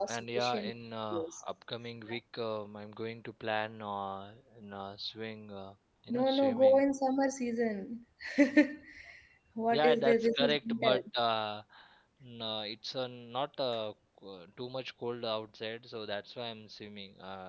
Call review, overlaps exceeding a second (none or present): present